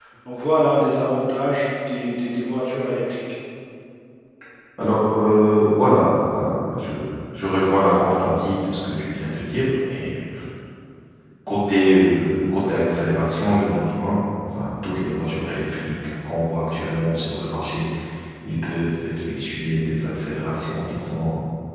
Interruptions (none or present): none